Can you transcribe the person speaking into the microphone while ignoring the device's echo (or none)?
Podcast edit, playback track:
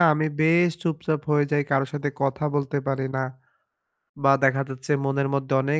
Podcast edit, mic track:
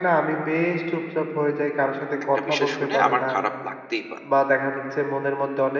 একটা বিষয় শুনে আমার খারাপ লাগতেই পারে।